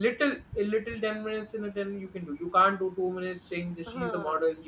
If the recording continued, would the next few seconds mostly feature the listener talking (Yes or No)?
No